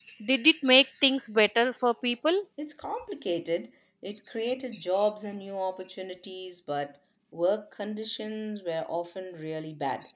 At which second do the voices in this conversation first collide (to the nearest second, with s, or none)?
none